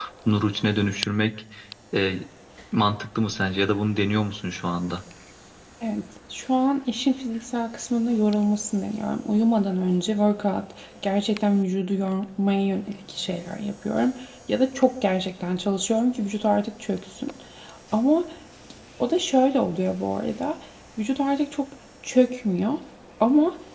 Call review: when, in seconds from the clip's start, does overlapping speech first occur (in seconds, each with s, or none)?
none